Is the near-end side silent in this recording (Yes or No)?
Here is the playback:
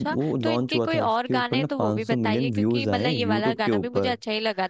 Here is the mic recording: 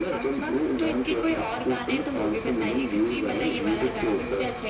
Yes